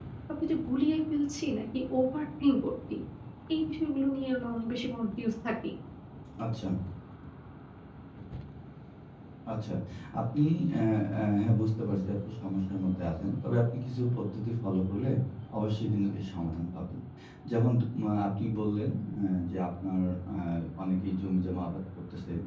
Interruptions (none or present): none